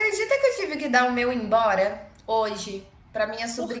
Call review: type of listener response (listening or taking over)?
listening